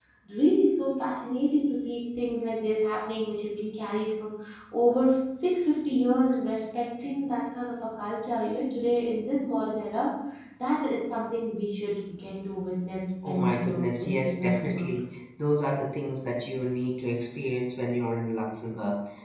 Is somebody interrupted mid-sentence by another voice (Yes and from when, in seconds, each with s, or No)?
Yes, from 13.2 s